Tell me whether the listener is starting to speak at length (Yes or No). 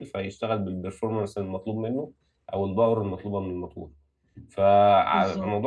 No